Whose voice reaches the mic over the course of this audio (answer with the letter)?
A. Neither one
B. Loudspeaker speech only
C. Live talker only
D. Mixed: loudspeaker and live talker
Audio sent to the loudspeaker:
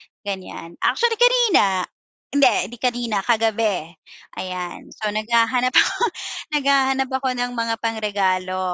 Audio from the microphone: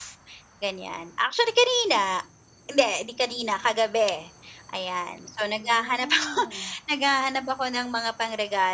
D